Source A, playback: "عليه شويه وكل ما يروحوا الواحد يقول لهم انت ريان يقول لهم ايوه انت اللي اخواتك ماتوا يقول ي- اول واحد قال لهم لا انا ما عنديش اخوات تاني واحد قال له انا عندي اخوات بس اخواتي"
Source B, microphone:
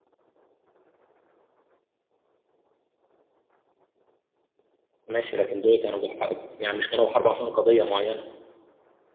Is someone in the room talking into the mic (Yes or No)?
Yes